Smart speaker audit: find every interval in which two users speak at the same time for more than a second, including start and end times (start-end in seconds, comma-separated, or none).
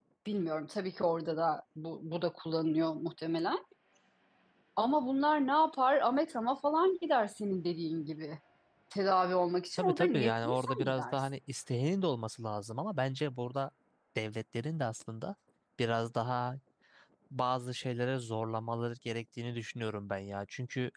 9.8-11.3